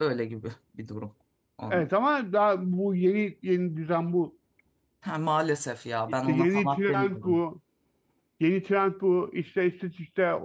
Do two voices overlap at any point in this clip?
Yes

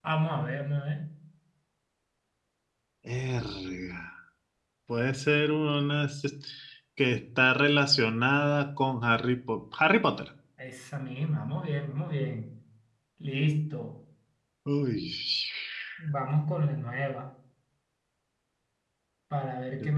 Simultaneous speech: No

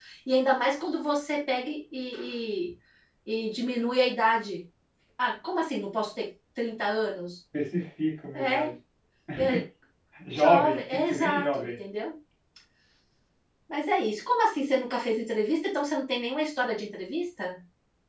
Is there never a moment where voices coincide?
No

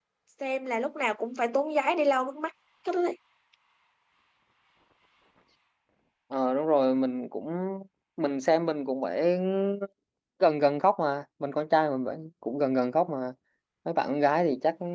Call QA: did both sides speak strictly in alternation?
Yes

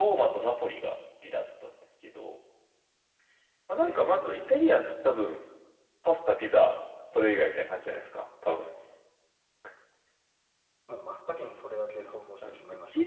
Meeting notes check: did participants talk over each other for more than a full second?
Yes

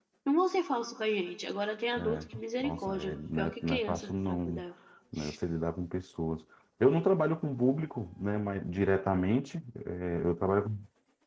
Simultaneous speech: Yes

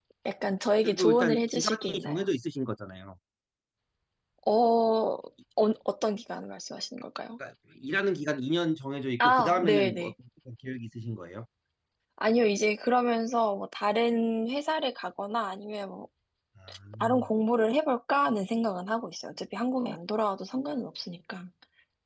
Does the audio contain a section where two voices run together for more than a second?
Yes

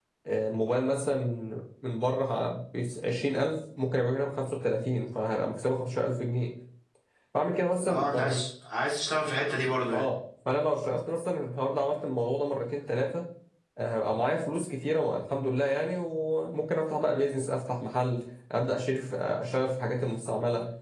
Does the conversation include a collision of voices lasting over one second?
No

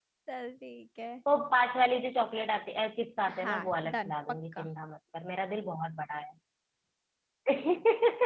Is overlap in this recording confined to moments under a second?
No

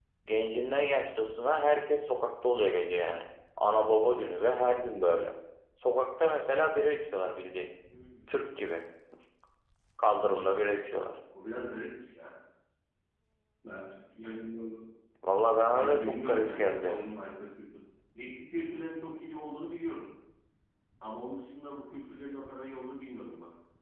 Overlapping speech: Yes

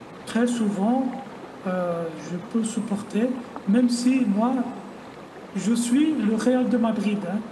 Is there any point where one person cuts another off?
No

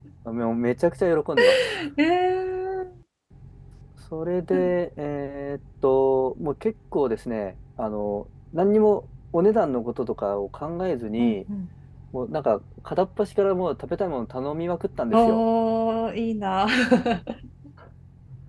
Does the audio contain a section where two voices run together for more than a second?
No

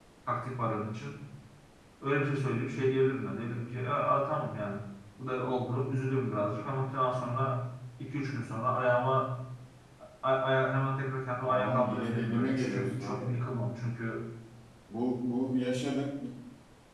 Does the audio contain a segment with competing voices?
Yes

